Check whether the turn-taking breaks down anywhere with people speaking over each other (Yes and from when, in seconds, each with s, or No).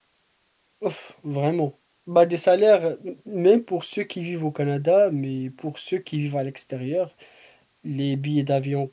No